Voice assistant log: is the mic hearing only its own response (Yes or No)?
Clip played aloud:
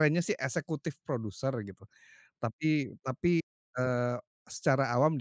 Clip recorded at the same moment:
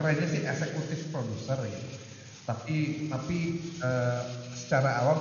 Yes